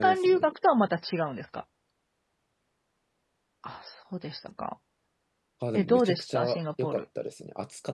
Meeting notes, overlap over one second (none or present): present